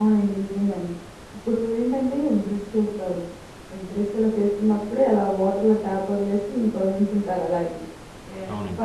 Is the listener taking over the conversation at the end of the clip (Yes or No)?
No